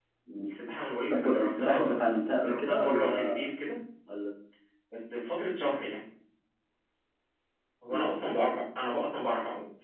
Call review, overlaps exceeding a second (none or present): present